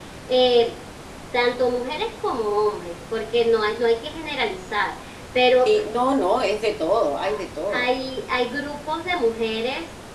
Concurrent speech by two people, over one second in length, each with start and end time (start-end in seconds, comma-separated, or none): none